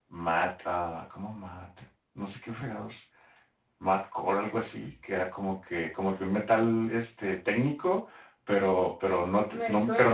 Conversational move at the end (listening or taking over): listening